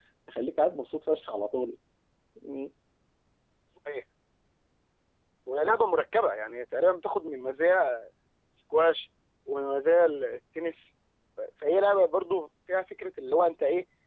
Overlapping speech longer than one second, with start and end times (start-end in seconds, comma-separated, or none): none